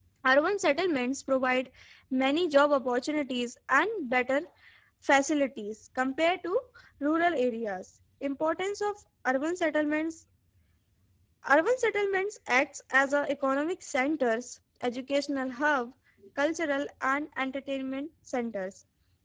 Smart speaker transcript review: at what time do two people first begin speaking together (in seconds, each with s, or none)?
none